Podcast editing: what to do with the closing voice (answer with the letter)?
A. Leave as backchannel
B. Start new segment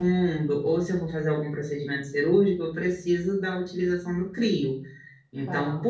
A